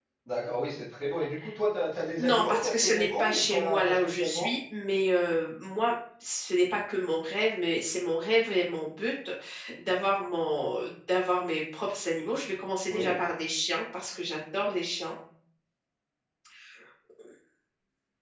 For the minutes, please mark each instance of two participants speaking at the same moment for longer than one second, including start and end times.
2.2-4.5

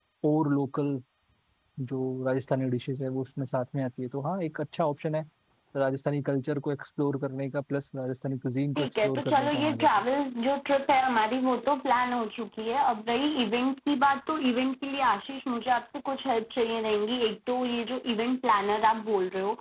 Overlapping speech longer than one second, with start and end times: 8.8-10.0

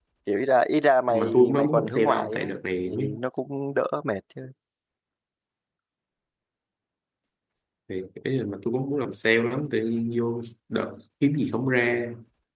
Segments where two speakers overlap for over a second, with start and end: 1.1-2.5

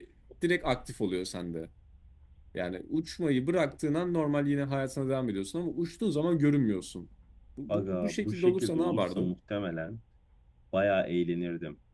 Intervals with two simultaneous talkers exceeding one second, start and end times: 7.7-9.3

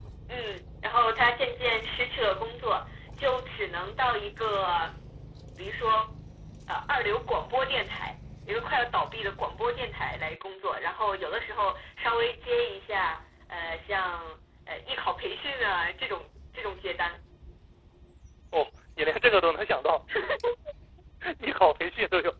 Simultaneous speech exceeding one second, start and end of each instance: none

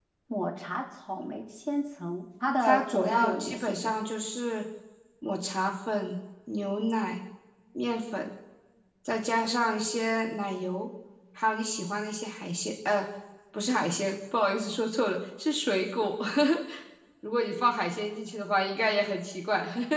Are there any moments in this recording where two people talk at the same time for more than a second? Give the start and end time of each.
2.6-3.9

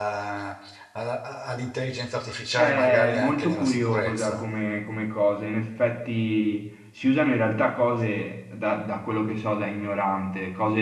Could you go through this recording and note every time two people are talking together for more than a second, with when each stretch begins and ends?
2.5-4.5

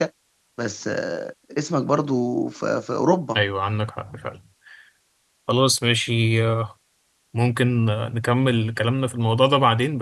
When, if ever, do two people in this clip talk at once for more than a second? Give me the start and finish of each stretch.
none

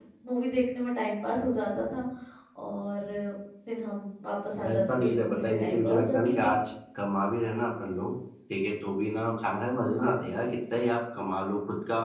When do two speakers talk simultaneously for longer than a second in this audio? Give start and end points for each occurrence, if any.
4.6-6.5

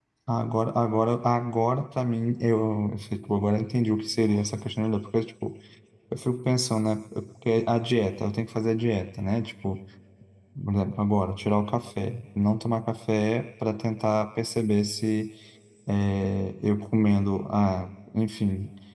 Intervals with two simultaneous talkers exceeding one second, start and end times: none

